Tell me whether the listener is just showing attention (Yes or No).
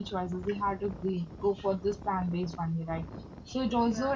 Yes